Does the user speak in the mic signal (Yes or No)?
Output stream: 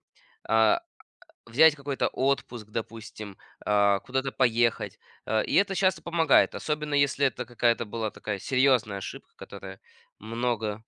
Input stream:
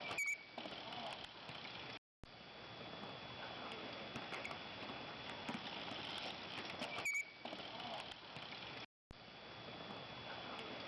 No